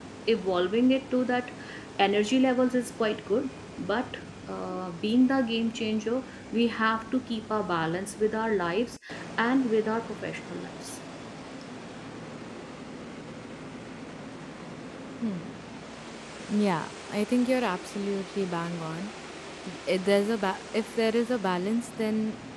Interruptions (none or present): none